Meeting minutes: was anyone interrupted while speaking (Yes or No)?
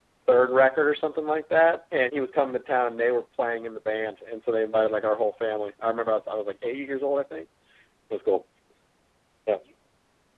No